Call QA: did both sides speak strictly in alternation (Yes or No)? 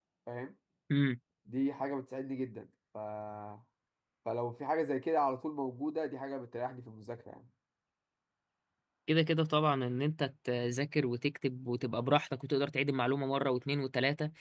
Yes